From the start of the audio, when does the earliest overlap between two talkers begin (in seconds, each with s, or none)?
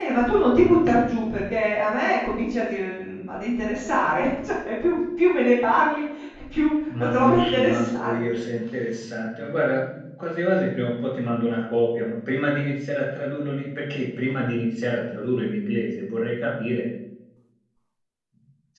7.0 s